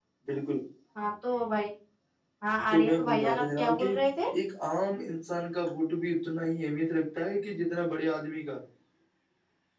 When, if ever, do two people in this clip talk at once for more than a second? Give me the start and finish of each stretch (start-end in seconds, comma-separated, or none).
2.7-3.9